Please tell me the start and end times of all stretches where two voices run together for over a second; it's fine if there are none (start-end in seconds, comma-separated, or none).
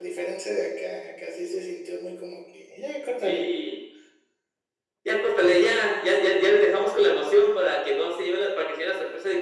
none